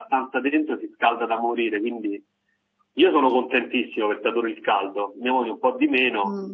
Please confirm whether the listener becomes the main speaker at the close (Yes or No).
Yes